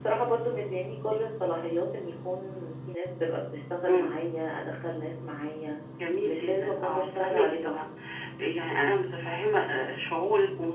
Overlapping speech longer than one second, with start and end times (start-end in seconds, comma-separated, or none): 6.2-7.6